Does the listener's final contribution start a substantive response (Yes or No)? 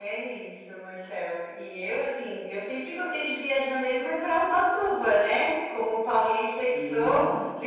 No